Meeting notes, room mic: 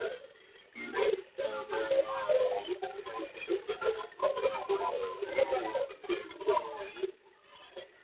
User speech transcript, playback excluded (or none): none